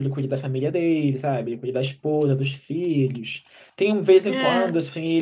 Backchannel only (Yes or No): Yes